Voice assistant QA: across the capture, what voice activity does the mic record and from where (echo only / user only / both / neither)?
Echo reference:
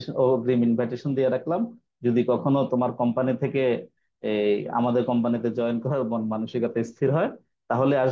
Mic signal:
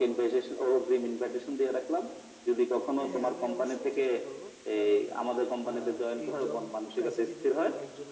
both